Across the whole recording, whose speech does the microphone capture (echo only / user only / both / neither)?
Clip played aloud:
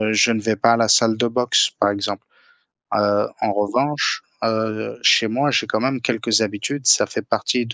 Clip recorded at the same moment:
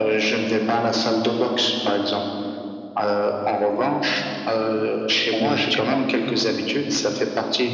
both